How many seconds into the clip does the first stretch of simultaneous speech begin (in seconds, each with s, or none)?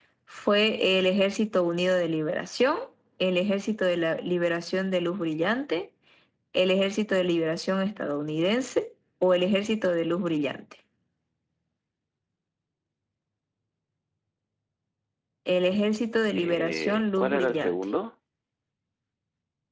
16.4 s